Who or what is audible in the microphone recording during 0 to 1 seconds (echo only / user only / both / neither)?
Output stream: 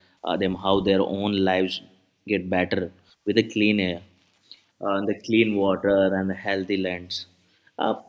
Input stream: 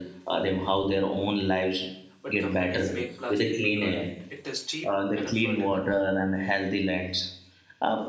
echo only